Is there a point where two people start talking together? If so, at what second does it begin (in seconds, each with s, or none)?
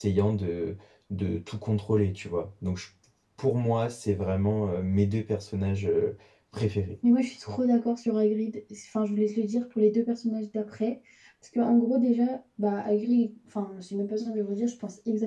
none